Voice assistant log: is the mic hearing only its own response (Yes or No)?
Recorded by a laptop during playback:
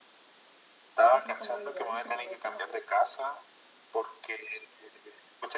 No